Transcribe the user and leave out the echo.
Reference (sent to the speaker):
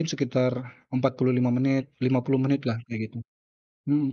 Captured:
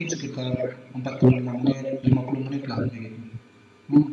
none

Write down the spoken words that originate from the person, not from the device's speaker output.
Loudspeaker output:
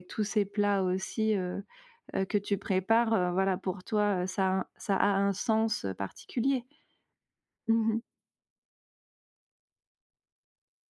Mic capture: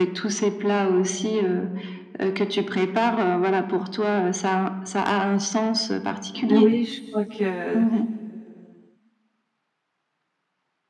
Oui, je crois que

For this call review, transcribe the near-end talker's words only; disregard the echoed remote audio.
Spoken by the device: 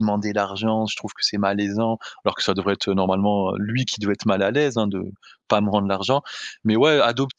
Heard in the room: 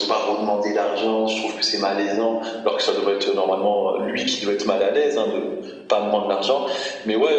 none

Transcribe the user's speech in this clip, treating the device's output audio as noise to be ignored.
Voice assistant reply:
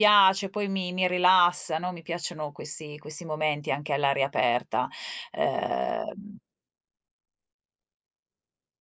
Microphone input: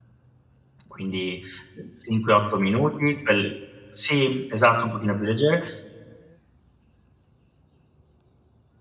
quindi, uhm, 5, 8 minuti, quel sì, esatto, un pochino più leggere.

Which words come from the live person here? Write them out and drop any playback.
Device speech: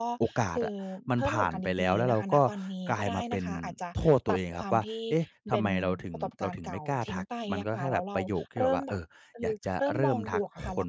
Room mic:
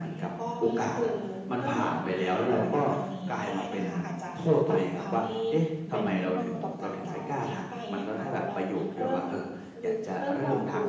อ๋อ ค่ะ

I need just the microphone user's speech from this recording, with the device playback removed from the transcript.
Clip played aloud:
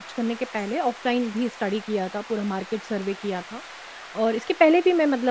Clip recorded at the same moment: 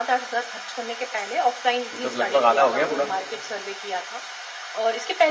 ये तो लगभग आधा हो गया पूरा।

